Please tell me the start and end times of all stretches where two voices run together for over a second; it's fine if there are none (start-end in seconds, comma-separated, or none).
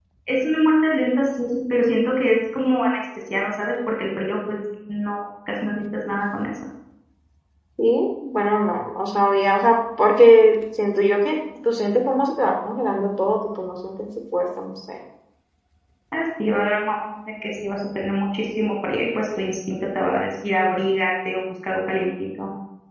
none